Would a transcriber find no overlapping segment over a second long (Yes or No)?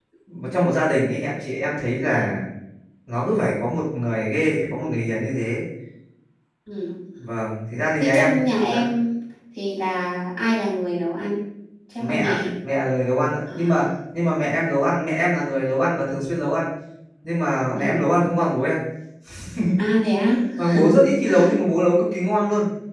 Yes